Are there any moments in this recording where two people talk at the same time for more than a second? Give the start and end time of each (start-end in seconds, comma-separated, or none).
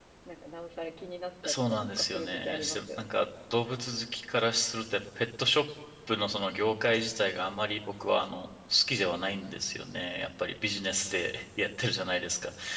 1.4-3.1